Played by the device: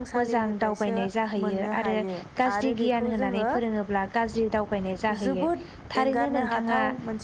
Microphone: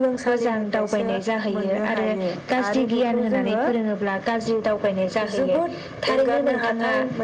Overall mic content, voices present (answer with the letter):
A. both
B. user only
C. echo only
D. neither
C